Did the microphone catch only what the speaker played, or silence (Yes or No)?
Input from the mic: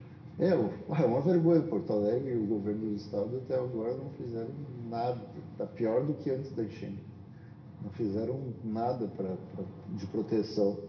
Yes